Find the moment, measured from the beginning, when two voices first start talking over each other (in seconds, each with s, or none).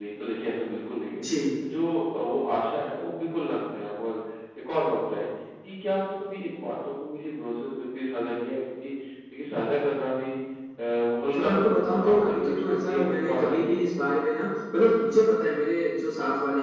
11.3 s